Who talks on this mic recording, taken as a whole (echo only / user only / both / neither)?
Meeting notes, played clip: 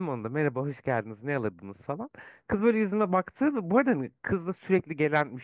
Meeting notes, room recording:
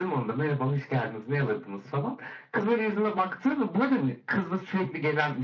echo only